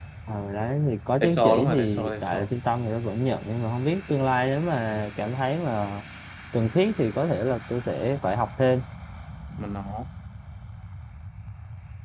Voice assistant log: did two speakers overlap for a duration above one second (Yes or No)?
Yes